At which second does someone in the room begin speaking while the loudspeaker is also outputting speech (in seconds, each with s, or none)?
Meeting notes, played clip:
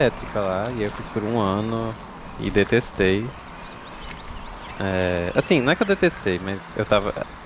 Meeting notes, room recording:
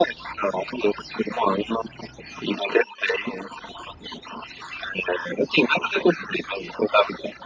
none